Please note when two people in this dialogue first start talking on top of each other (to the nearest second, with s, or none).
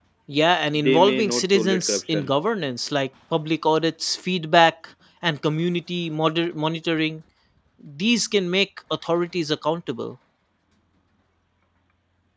1 s